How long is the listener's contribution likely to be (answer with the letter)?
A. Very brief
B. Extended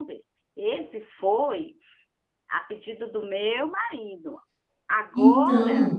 A